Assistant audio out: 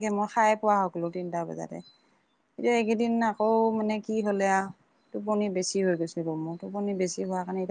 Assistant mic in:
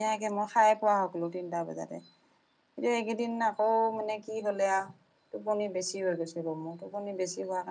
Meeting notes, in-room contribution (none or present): none